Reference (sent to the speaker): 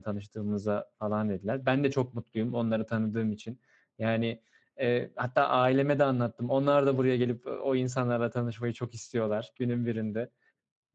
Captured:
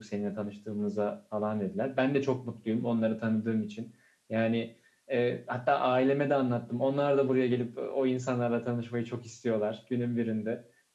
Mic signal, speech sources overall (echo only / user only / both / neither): echo only